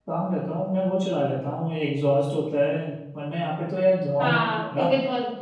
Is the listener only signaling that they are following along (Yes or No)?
No